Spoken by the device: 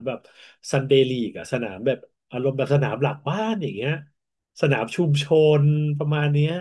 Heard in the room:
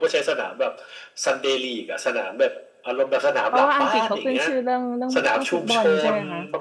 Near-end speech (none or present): present